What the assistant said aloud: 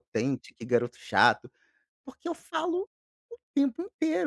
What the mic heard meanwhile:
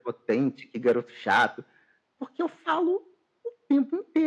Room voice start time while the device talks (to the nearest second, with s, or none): none